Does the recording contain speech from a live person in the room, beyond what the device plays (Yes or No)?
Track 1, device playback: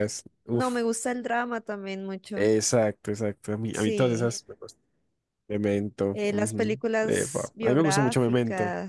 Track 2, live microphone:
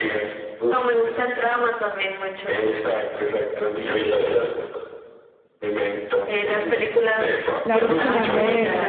Yes